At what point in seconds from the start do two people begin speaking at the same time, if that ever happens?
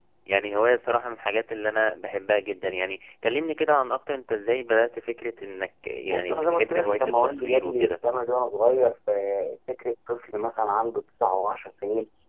6 s

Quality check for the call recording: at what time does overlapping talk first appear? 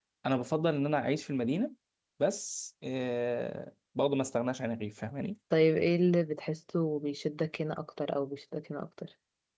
none

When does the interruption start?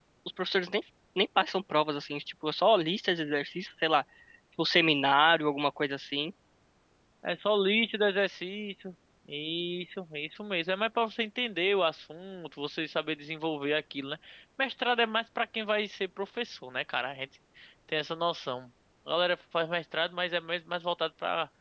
none

